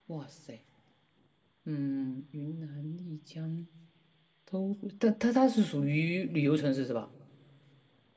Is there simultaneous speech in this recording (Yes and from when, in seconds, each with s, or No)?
No